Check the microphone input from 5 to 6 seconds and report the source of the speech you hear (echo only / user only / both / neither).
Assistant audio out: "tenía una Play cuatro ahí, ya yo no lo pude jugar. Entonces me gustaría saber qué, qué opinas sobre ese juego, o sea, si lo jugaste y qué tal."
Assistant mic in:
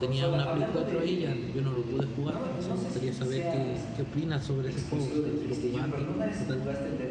both